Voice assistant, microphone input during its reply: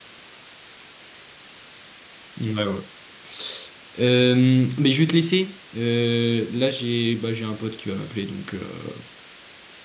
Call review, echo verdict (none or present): none